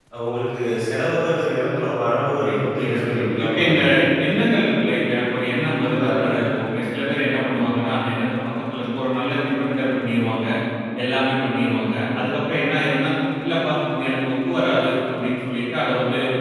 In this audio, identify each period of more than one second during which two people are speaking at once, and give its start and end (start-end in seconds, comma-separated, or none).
2.4-3.8